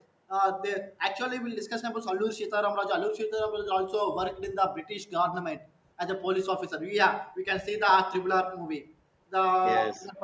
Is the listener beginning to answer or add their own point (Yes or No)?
No